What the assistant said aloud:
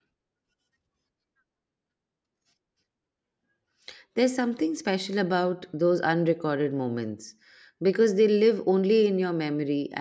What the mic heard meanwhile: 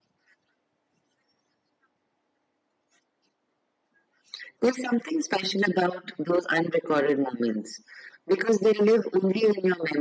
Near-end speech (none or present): none